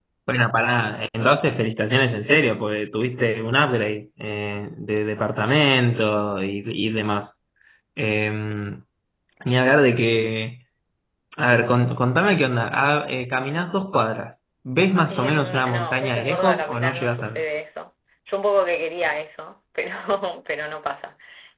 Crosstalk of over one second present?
Yes, from 15.1 s

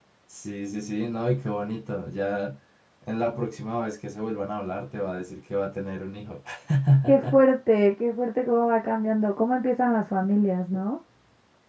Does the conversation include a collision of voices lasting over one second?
No

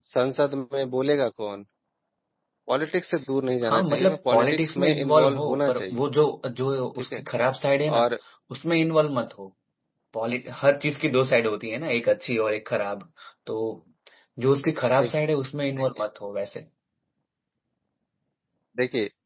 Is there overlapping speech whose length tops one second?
Yes, from 3.6 s

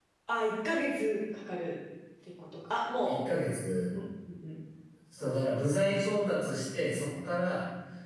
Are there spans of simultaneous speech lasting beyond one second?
No

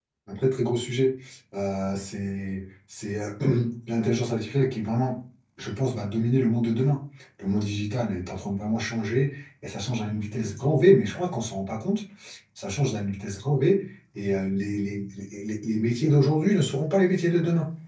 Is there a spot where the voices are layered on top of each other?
No

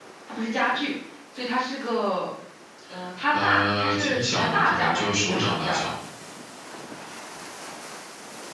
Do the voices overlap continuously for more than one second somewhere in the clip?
Yes, from 3.4 s

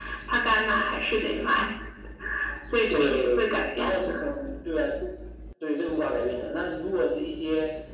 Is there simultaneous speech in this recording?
Yes, from 2.9 s

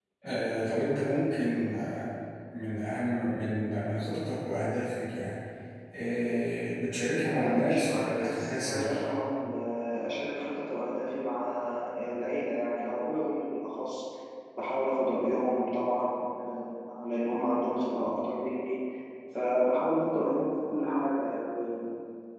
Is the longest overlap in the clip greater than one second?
Yes, from 7.3 s

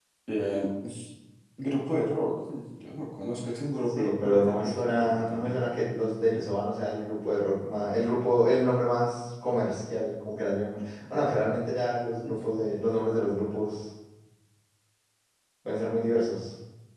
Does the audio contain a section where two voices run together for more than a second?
Yes, from 3.9 s

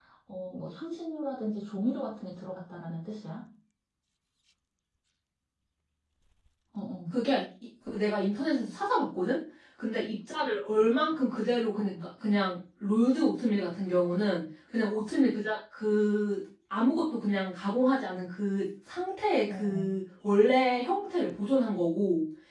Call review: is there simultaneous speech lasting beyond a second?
No

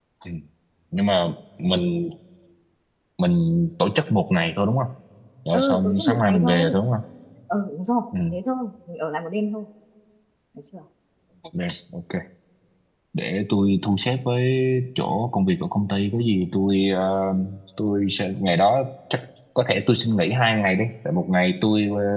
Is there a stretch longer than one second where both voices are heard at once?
Yes, from 5.5 s

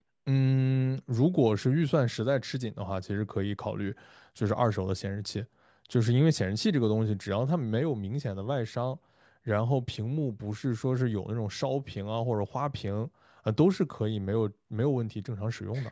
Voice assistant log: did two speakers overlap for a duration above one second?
No

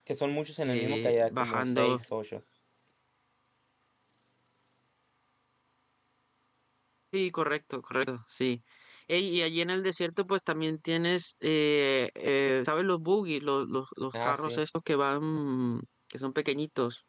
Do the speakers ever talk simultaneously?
Yes, from 0.6 s

